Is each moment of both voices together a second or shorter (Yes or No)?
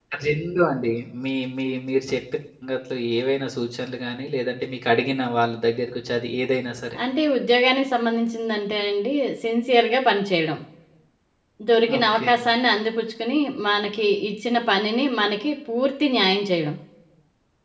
Yes